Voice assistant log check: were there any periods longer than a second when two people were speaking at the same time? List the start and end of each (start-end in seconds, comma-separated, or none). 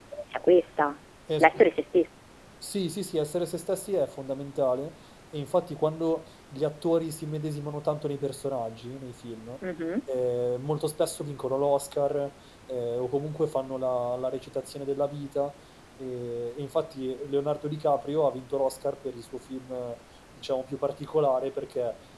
none